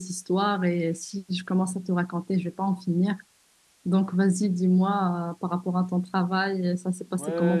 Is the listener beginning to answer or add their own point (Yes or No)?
Yes